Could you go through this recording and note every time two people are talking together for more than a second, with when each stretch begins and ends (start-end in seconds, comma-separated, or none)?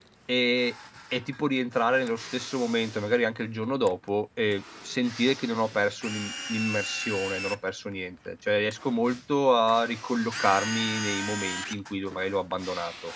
none